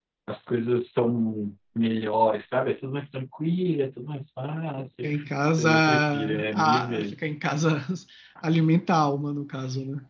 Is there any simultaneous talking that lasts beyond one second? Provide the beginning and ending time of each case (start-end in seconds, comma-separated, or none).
5.6-7.3